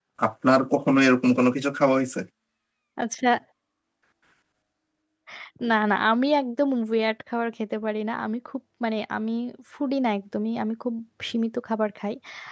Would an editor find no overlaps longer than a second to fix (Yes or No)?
Yes